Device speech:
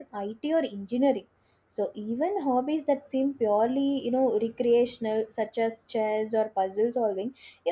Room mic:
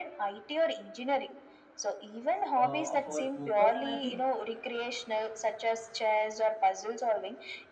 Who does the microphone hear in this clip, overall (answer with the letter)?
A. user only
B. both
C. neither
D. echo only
B